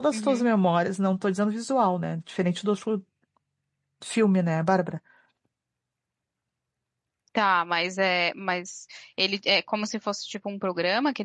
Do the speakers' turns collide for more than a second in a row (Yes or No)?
No